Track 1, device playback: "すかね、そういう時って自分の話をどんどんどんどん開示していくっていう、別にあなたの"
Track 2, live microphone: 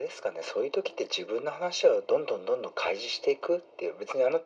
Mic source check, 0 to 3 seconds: echo only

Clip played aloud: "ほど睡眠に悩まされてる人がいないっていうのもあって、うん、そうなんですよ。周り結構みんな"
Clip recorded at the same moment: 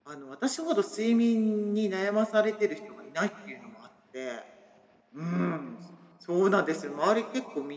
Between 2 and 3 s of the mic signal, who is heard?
echo only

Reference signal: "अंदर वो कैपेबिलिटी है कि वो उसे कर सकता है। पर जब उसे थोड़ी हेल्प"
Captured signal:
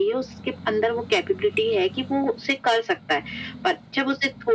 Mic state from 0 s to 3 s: echo only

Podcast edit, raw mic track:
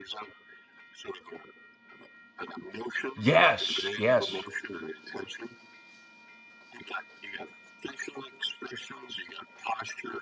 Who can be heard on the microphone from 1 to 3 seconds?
echo only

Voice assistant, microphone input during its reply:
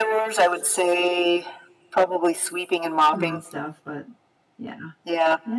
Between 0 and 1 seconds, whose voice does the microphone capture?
echo only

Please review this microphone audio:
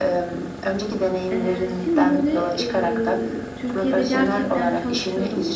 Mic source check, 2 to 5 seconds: both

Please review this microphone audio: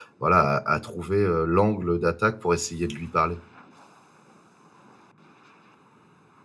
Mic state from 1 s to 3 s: user only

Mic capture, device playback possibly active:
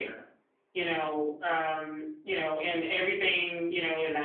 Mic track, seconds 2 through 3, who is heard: echo only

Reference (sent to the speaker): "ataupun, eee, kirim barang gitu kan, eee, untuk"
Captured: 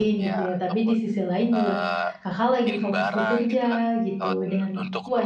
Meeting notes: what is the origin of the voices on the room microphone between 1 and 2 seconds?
both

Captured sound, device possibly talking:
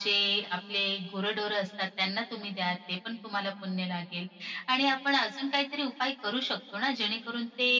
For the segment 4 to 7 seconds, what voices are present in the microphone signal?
echo only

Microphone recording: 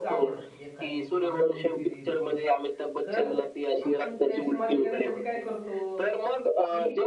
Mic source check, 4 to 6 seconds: both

